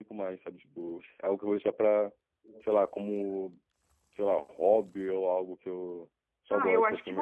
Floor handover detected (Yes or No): Yes